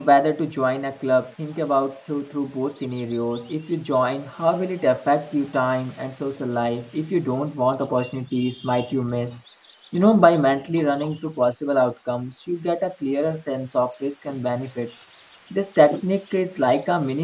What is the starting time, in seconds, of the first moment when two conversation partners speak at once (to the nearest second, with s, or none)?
none